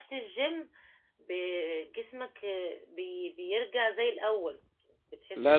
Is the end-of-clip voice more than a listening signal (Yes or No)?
Yes